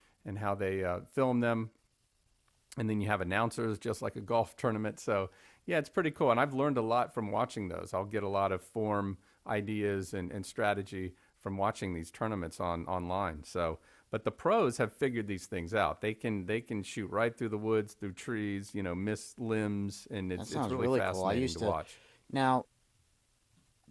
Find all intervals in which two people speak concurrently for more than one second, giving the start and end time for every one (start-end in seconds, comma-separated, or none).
20.4-21.7